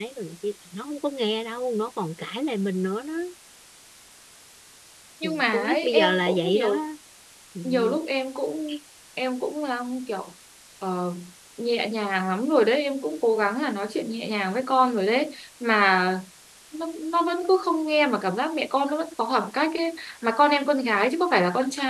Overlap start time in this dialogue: 5.5 s

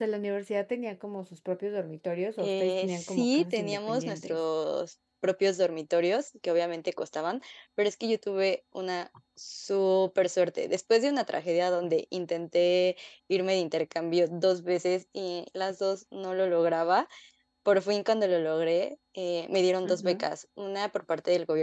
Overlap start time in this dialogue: 2.4 s

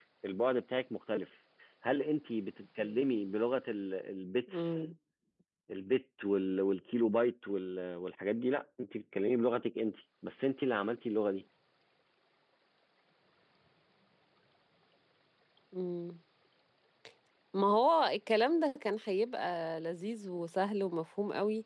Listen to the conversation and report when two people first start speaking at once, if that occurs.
none

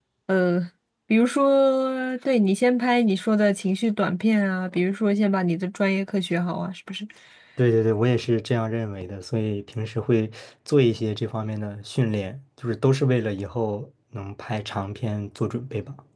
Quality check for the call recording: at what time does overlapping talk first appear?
none

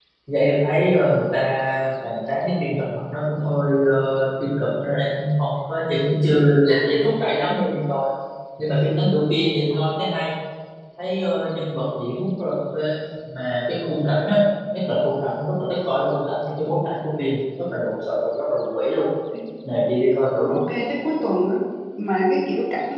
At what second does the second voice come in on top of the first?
none

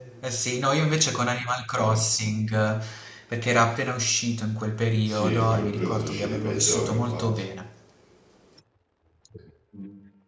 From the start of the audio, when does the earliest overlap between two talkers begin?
5.0 s

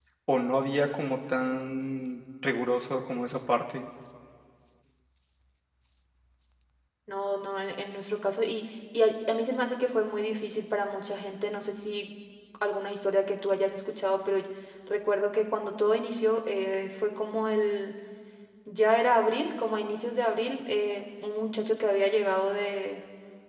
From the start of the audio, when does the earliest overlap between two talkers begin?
none

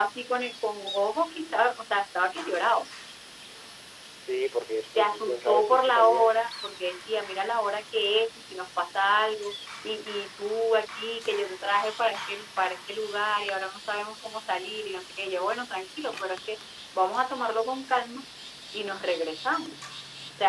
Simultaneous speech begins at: 5.0 s

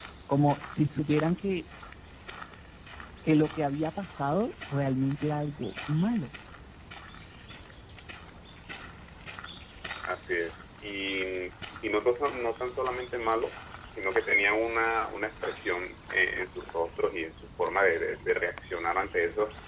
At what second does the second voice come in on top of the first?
none

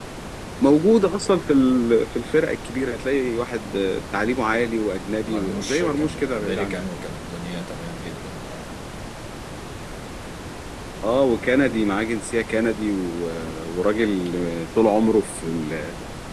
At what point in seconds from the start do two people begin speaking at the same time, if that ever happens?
5.2 s

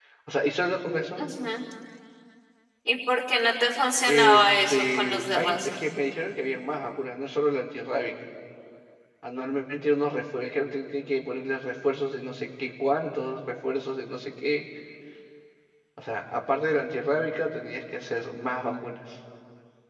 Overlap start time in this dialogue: 4.1 s

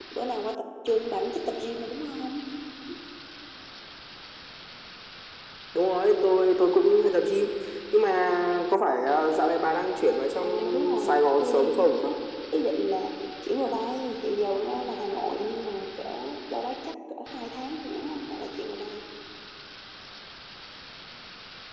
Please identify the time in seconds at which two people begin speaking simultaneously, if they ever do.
10.4 s

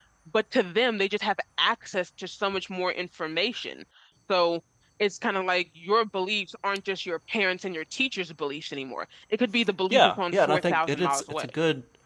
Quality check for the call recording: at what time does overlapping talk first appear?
9.9 s

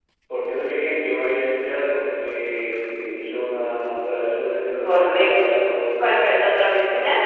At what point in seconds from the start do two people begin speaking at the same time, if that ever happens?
4.8 s

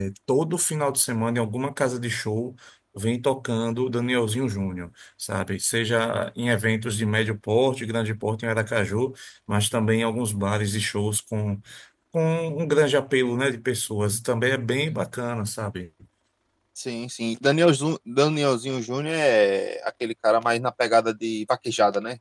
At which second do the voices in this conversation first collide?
none

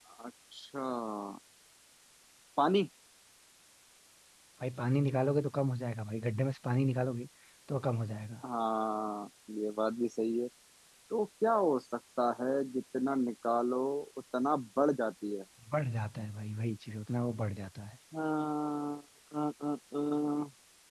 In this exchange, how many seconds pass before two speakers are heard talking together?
none

